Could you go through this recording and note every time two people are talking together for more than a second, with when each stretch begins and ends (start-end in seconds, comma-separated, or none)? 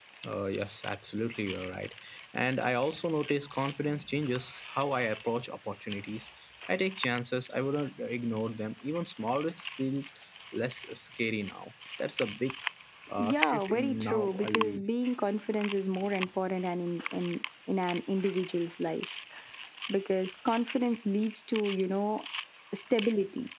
13.2-14.8